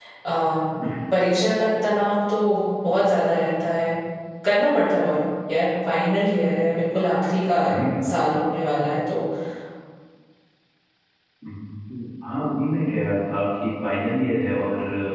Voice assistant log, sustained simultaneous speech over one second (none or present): none